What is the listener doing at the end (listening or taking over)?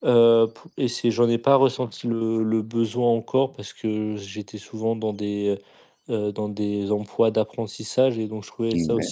listening